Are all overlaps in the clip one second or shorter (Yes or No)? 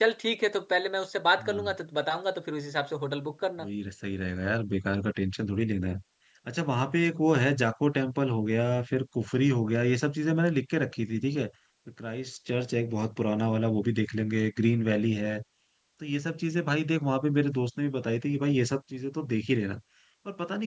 Yes